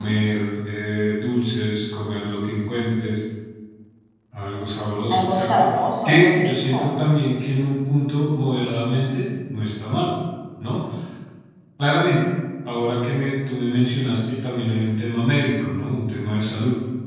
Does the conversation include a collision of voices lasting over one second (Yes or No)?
Yes